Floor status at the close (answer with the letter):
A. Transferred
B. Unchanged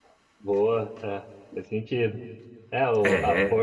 B